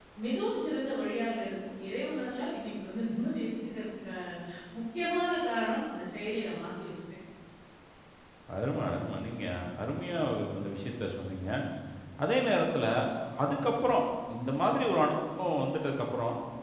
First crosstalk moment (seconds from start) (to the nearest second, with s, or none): none